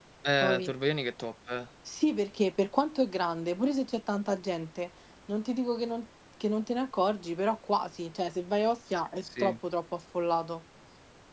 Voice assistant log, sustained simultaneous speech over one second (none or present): none